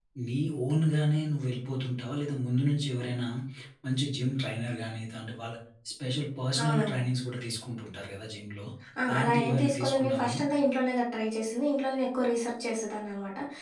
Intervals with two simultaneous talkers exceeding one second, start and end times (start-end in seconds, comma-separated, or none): 9.1-10.4